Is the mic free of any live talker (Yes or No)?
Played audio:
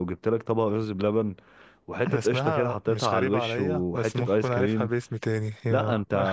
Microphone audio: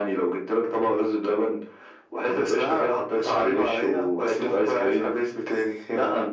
Yes